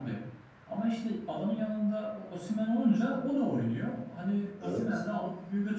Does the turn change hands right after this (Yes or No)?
No